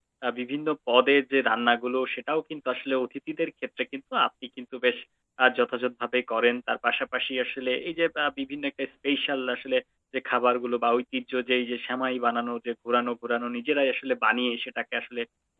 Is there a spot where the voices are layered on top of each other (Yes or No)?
No